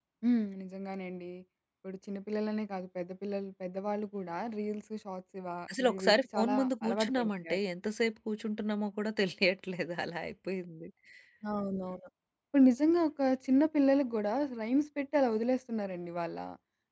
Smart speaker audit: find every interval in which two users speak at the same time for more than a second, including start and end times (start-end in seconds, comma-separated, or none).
5.8-7.6